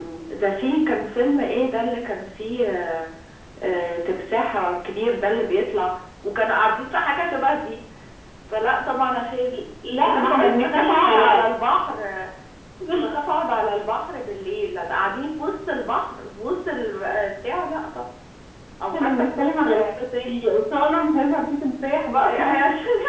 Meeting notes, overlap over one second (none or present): present